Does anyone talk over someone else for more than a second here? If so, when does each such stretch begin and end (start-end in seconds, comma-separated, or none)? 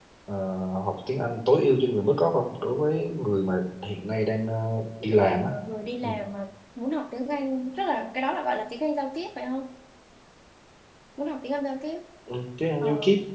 none